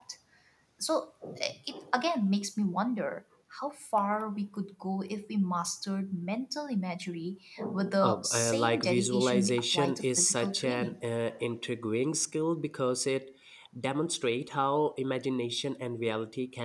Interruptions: present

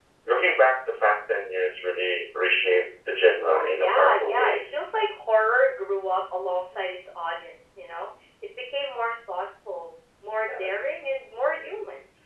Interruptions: present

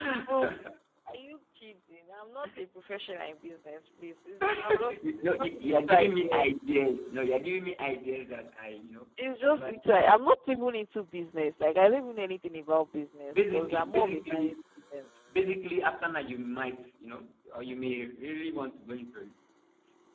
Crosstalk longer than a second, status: present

